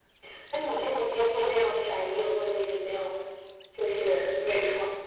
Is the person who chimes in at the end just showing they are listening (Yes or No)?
No